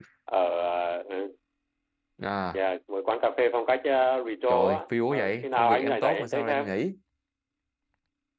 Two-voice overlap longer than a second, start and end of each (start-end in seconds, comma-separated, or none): 4.5-6.6